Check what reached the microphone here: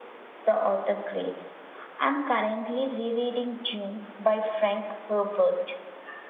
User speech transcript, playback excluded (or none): none